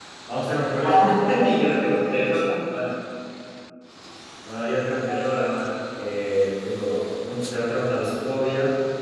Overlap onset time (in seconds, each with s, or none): 0.8 s